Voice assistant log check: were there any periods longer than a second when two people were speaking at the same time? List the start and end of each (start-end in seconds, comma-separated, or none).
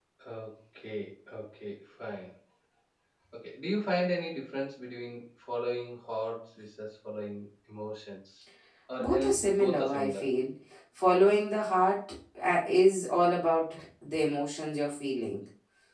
9.0-10.2